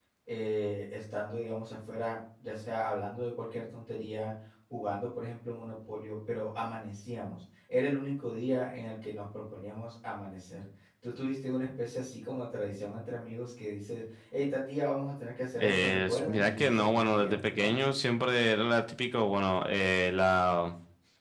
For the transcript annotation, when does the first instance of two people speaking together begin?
16 s

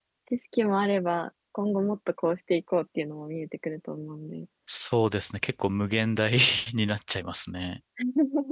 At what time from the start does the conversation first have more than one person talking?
none

